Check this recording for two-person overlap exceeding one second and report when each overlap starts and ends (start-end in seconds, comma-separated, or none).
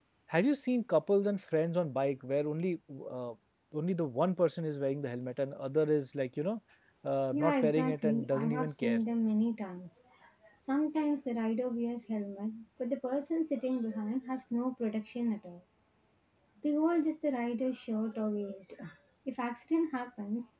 7.3-9.0